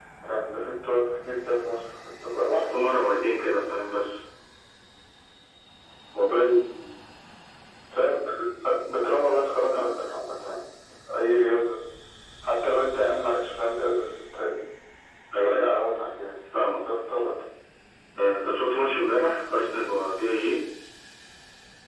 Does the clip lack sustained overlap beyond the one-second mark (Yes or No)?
Yes